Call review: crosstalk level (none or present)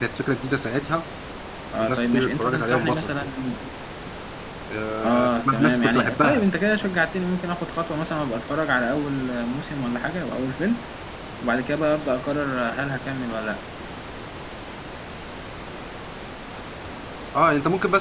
present